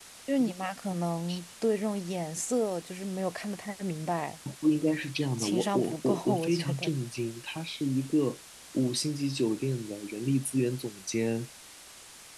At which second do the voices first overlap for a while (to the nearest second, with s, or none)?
5 s